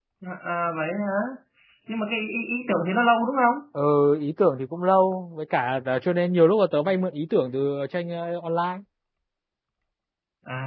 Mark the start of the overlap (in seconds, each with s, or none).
none